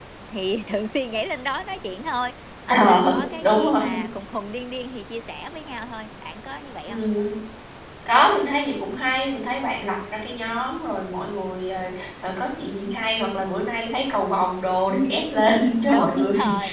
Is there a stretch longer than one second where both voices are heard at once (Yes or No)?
Yes